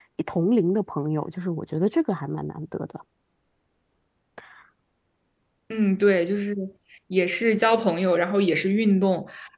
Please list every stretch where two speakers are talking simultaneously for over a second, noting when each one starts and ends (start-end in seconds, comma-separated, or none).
none